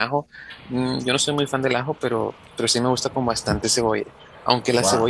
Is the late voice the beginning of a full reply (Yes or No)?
No